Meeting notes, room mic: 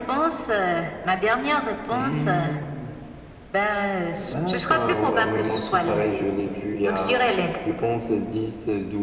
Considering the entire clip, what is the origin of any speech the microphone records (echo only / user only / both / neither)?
echo only